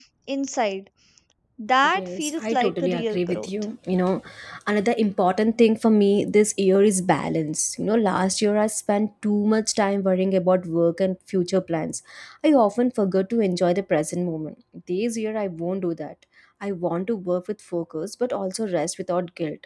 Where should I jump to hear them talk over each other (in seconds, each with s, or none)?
1.9 s